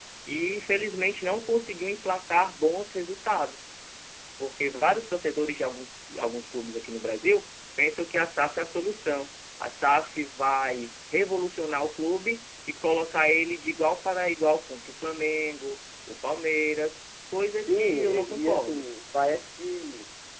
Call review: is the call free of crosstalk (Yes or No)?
No